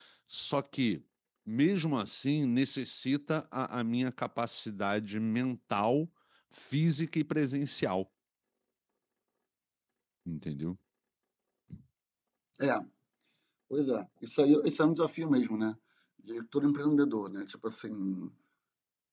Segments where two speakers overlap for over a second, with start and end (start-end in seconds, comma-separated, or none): none